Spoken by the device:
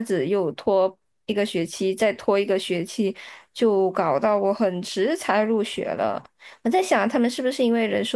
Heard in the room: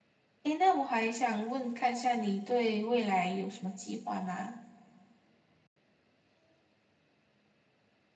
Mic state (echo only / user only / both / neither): user only